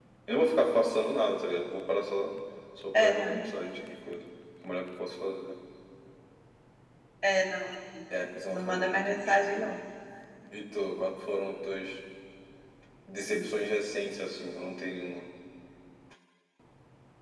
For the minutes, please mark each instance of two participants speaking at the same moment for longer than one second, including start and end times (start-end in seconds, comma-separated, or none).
8.5-9.8